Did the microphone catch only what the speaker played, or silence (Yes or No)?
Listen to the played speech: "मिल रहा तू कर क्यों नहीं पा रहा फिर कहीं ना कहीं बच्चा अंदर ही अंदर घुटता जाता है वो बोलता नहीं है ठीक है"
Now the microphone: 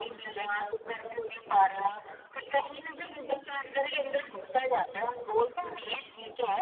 Yes